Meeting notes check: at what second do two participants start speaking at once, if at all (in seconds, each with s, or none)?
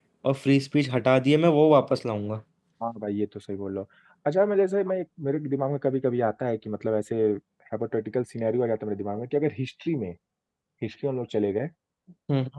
none